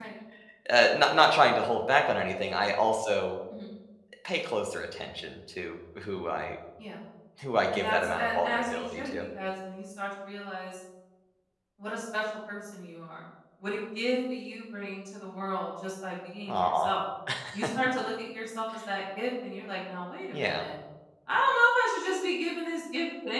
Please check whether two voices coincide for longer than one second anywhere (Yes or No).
Yes